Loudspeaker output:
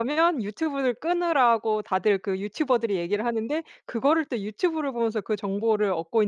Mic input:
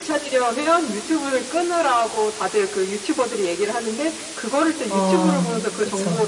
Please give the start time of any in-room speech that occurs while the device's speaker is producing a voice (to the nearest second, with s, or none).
5 s